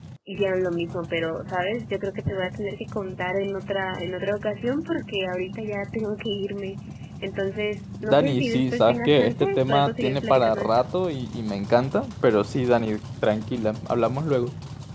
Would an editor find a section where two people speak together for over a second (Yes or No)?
Yes